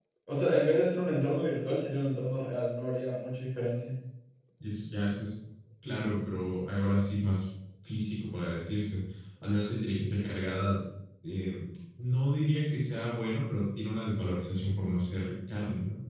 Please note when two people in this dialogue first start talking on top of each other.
none

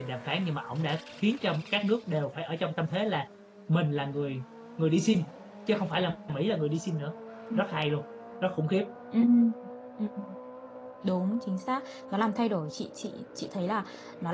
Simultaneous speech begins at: none

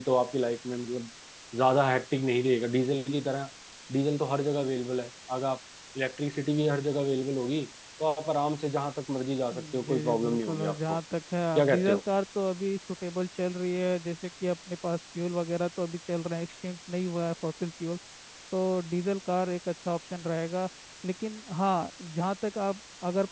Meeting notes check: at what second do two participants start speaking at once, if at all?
9.5 s

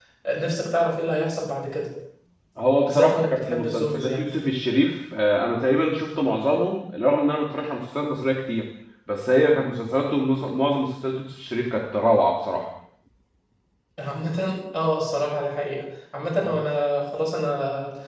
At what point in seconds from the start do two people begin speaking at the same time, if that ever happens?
2.9 s

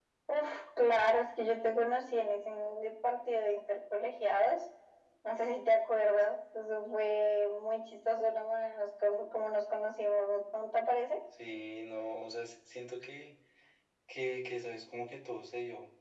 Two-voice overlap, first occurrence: none

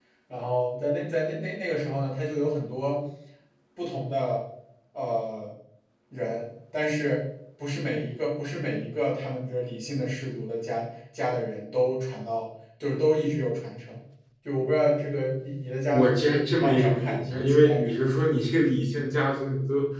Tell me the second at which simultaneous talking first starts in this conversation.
15.9 s

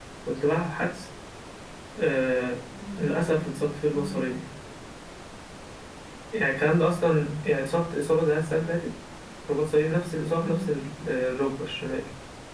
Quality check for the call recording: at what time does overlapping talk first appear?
3.0 s

